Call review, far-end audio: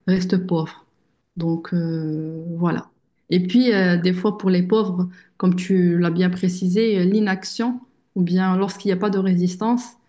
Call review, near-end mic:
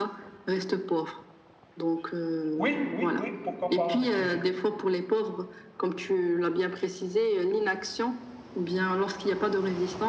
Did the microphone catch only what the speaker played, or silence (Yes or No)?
No